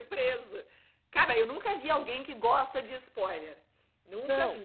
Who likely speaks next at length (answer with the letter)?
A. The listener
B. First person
A